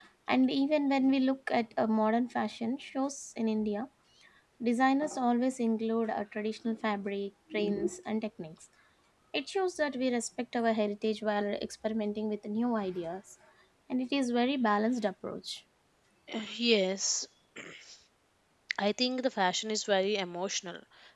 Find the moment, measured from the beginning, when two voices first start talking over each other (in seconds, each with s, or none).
none